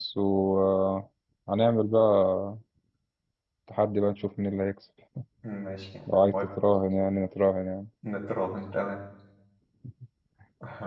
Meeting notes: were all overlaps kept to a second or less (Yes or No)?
Yes